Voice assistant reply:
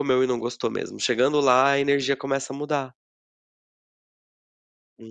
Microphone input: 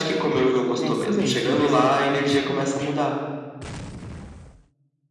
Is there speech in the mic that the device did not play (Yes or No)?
Yes